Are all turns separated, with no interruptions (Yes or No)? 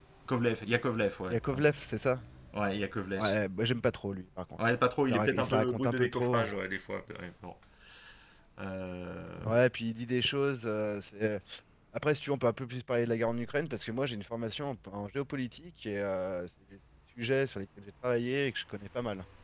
No